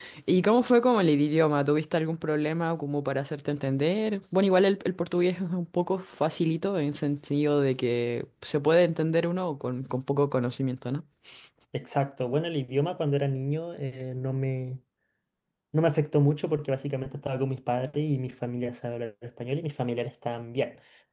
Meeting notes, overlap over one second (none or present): none